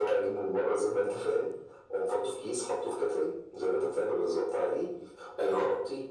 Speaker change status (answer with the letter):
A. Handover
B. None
B